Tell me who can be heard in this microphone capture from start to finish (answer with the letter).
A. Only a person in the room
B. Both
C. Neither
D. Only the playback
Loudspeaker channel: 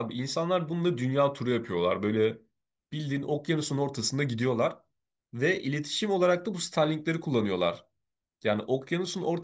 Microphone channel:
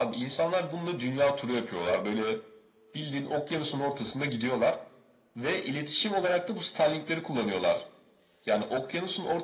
D